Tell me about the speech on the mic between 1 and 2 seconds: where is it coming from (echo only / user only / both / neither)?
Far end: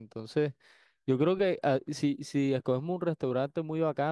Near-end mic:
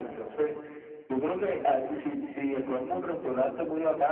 echo only